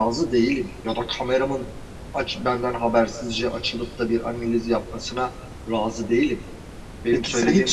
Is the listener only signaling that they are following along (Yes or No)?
No